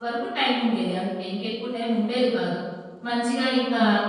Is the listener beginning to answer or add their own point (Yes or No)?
No